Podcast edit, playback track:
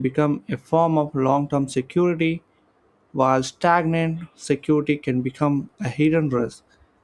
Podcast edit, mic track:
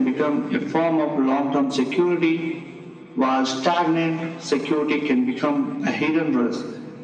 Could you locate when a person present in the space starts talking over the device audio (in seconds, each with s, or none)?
none